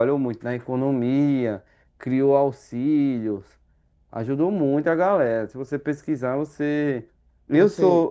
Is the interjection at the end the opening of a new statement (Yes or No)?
No